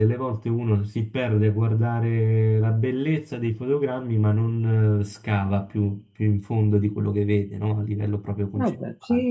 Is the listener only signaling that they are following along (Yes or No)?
No